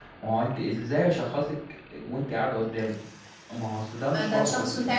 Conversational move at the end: taking over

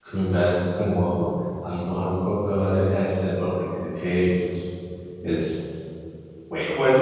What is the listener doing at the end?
taking over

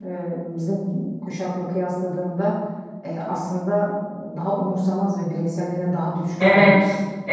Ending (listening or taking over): taking over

